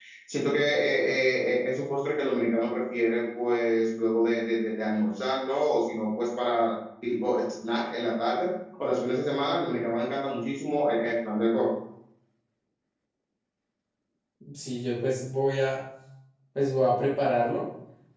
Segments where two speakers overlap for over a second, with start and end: none

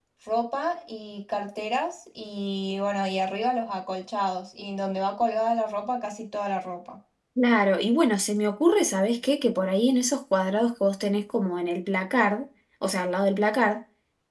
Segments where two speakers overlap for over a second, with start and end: none

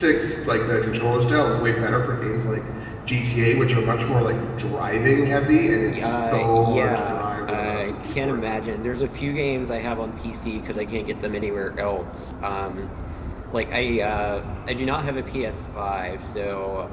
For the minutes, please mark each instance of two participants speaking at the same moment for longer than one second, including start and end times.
6.0-8.4

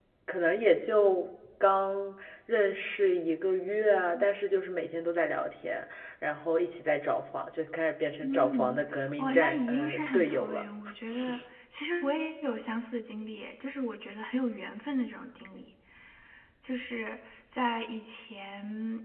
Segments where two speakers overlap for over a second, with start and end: 9.2-10.7

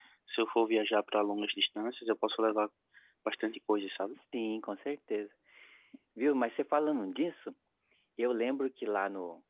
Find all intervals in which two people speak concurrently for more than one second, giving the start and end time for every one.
none

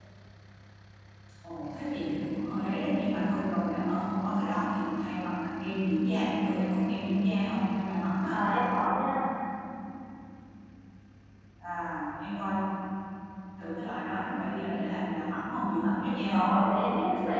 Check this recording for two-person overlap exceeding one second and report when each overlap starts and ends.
none

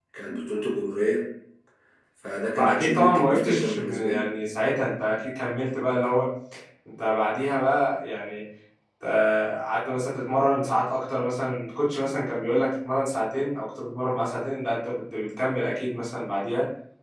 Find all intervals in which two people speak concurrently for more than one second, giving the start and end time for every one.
2.6-4.2

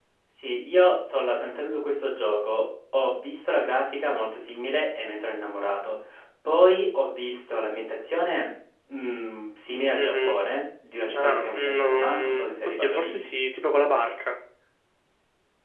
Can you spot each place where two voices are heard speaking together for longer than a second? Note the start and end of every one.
11.1-13.2

